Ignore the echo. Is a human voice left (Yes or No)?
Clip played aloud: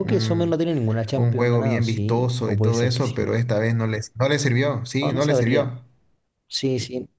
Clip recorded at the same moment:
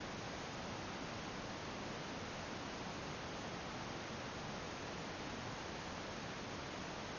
No